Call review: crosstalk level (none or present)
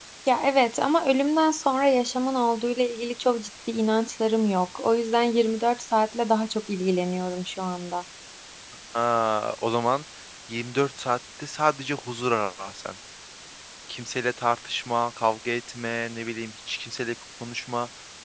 none